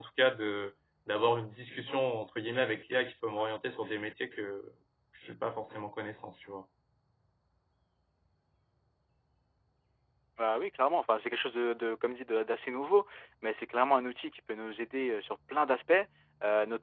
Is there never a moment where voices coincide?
Yes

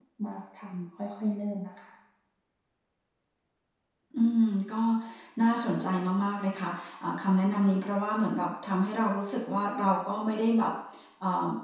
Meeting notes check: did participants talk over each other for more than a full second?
No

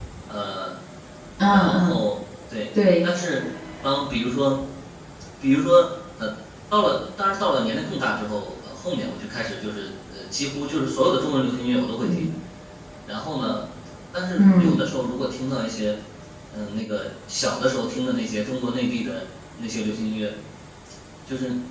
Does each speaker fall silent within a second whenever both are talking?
Yes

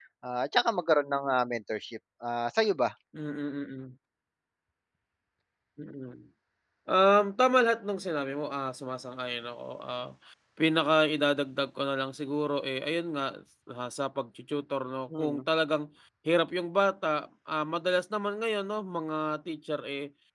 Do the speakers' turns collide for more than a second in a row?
No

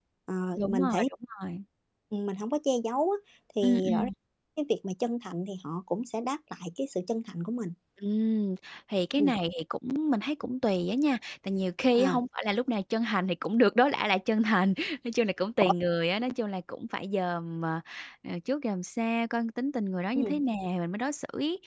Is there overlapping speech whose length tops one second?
No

